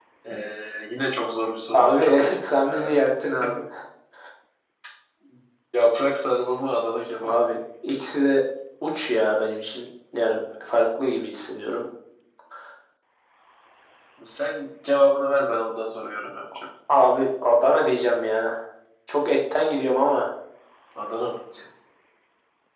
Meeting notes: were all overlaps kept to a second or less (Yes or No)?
No